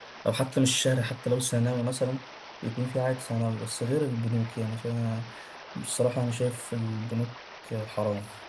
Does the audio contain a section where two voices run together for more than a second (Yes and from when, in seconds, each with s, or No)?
No